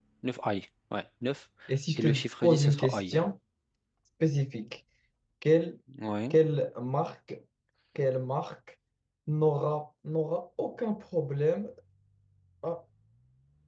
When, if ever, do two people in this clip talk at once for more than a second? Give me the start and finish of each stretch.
1.9-3.2

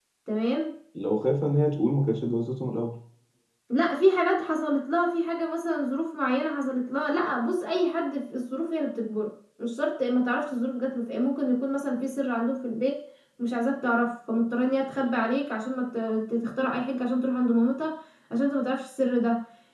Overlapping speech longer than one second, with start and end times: none

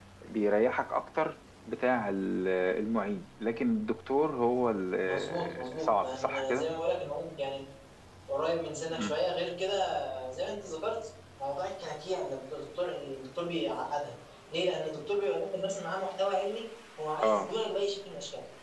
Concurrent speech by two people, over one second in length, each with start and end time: 5.0-6.7

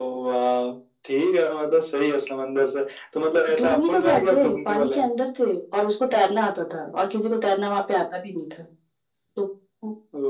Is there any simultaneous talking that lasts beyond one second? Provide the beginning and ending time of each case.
3.6-5.1

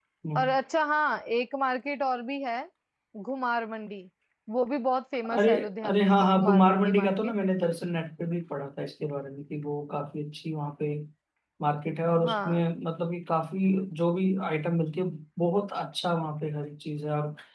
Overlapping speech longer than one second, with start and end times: 5.2-7.3

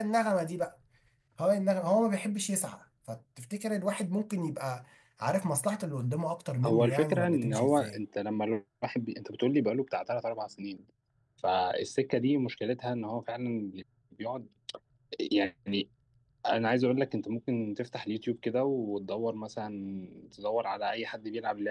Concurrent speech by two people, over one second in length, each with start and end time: 6.6-8.0

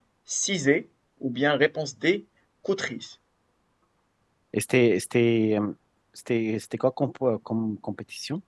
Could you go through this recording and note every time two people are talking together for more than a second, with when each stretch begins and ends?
none

